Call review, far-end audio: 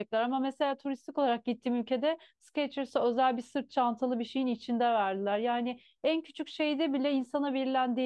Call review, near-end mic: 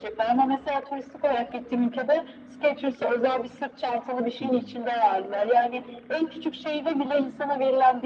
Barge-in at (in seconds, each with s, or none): 4.4 s